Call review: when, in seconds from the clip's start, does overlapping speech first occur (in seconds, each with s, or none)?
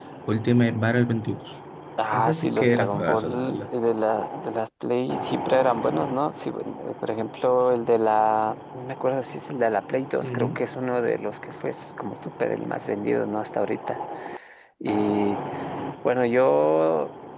2.1 s